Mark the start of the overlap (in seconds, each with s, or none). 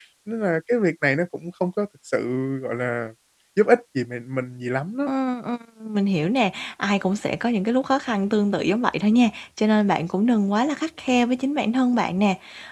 none